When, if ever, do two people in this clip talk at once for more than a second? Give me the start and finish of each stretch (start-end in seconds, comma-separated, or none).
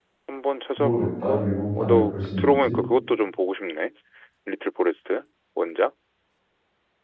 0.8-2.8